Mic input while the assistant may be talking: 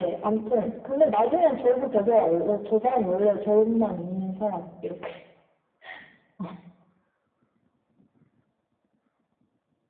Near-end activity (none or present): none